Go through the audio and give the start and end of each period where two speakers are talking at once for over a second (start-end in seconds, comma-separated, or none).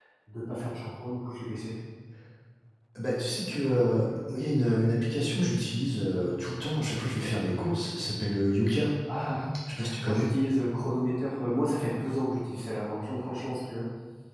none